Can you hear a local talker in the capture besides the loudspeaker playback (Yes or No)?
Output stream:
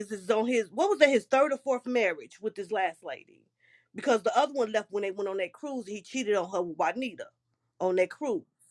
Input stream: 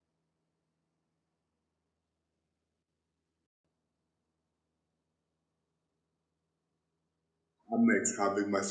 Yes